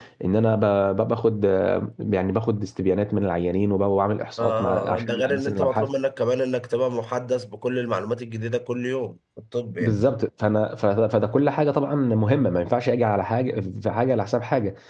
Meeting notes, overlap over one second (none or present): present